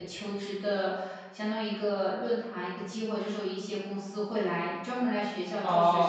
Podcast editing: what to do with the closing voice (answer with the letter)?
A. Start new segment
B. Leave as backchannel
A